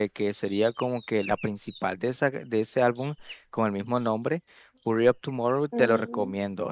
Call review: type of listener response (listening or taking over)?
listening